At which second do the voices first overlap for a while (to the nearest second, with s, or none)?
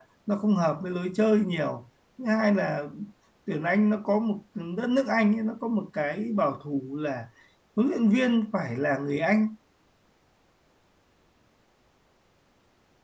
none